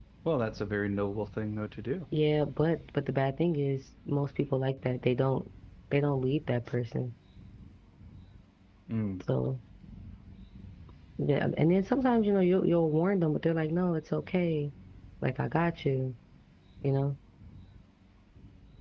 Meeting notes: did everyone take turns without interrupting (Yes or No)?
Yes